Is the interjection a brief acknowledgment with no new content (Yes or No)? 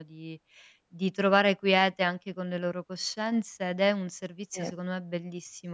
Yes